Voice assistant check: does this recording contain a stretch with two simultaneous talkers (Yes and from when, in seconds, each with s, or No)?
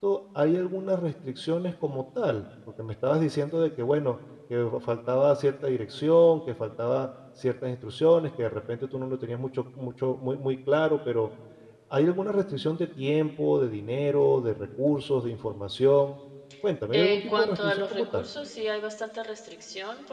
Yes, from 16.9 s